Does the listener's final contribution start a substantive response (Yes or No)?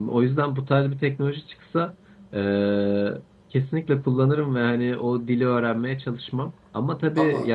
No